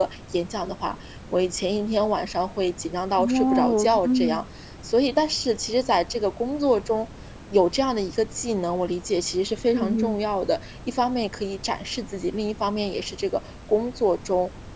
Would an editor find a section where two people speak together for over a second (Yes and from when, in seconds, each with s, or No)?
Yes, from 3.2 s